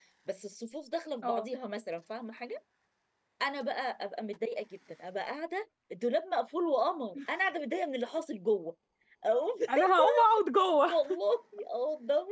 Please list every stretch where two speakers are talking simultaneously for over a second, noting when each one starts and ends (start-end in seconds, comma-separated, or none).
none